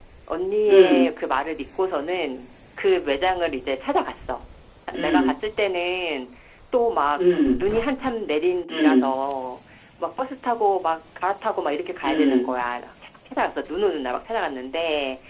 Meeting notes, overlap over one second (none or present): none